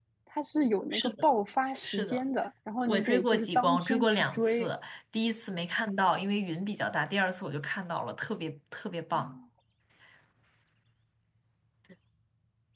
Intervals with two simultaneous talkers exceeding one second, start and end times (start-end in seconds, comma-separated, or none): 2.9-4.7